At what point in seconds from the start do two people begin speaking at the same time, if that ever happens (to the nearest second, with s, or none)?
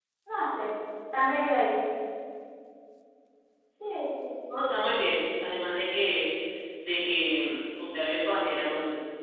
none